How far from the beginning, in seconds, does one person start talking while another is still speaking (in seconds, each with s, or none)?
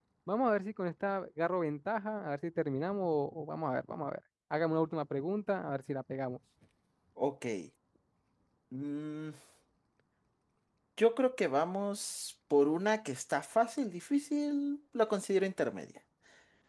none